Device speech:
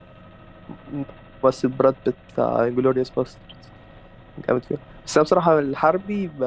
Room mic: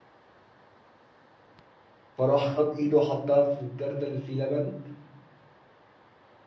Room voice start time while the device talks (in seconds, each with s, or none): 2.2 s